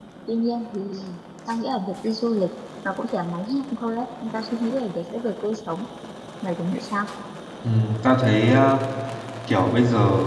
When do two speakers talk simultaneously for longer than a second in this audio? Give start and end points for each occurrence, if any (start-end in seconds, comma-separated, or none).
none